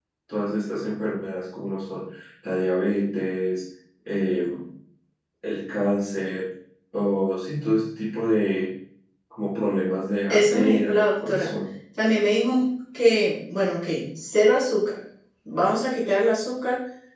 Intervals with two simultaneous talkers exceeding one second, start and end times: 10.3-11.5

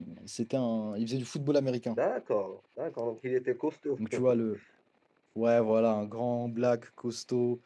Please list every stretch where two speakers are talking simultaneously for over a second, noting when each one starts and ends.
none

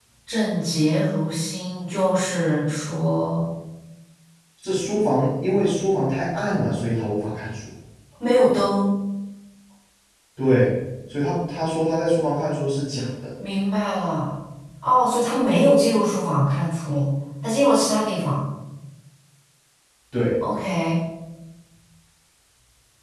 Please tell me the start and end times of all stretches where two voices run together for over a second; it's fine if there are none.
none

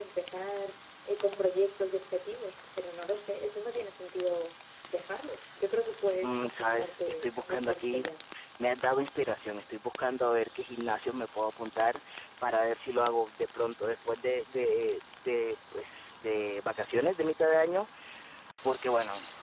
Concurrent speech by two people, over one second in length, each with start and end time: 6.2-8.0

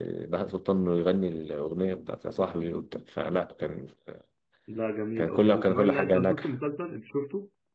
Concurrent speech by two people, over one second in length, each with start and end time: 5.2-6.5

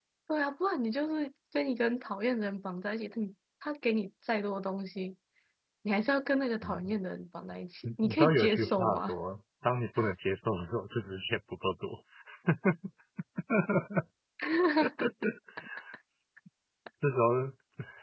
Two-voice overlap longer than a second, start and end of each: 7.8-9.1

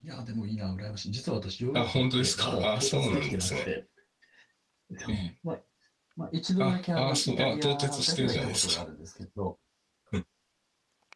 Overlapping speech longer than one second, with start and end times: 1.7-3.6, 6.6-8.8

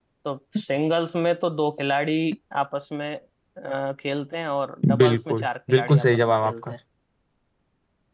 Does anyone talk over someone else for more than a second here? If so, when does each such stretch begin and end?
5.0-6.7

